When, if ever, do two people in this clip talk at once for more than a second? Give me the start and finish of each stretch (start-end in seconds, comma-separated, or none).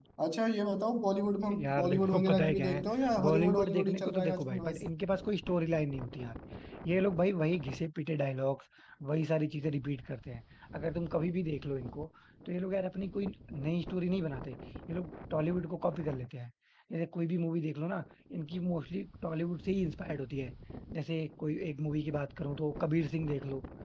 1.5-2.8, 3.2-4.9